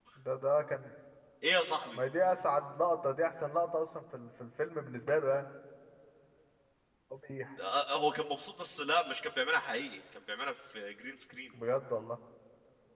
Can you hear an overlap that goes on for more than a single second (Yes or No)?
No